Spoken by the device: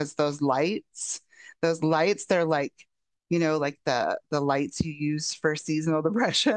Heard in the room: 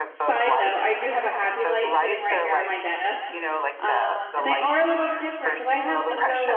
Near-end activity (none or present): present